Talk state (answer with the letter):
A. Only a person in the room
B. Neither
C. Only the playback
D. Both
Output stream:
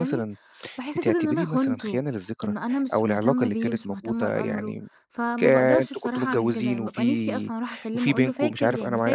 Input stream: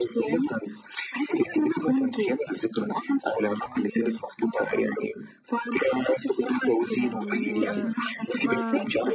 D